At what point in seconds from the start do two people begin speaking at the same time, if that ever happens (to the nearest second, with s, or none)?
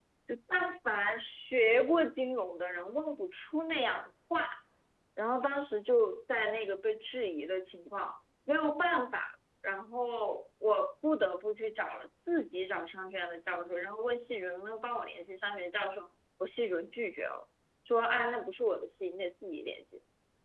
none